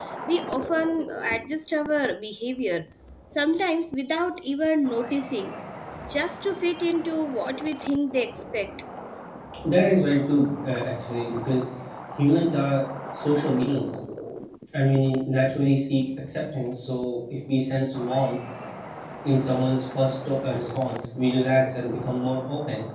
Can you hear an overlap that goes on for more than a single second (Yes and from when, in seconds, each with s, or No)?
No